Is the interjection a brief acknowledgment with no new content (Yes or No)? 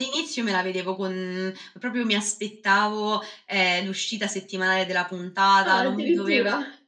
Yes